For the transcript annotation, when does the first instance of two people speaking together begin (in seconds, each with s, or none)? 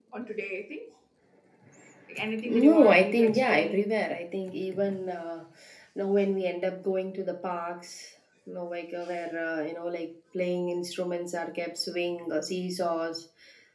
2.4 s